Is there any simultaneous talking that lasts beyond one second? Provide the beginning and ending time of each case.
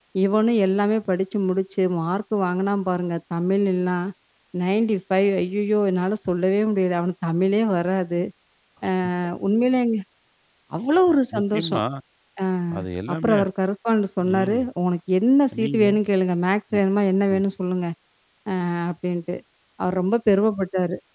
none

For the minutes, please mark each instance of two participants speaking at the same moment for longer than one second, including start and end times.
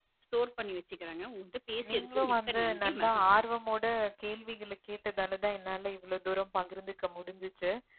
1.9-3.4

